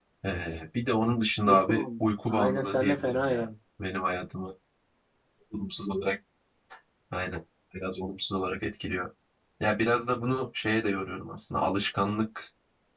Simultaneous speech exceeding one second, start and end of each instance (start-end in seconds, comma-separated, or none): 2.3-3.5